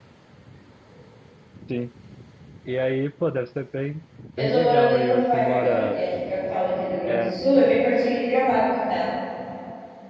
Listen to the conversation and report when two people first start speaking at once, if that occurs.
4.4 s

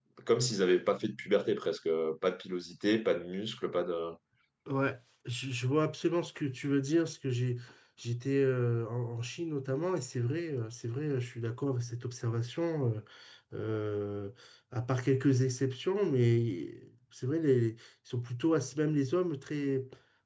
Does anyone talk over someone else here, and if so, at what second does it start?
none

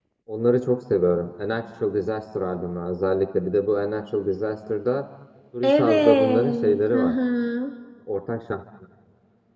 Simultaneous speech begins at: 5.6 s

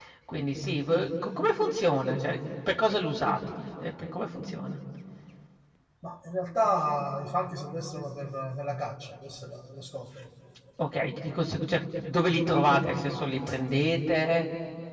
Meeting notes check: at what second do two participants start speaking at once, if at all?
none

